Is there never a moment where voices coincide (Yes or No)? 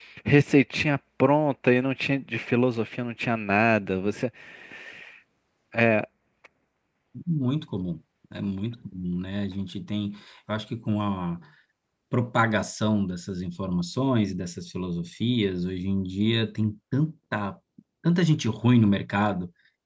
Yes